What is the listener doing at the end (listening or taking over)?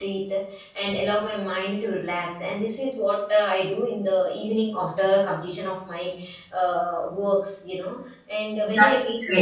listening